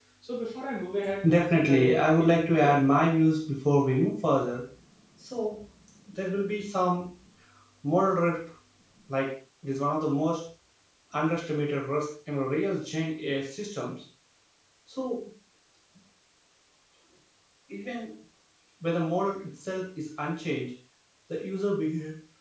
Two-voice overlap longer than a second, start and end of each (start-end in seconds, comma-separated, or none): 1.2-2.8